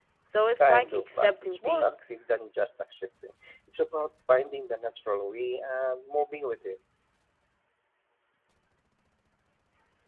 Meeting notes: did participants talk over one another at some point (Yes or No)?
Yes